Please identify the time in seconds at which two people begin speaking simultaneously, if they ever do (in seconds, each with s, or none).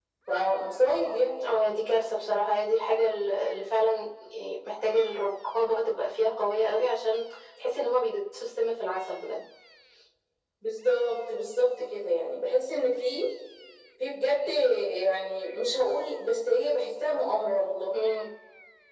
none